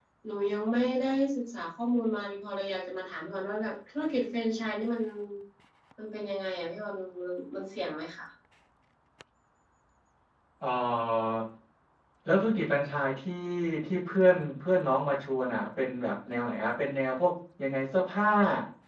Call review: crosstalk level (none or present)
none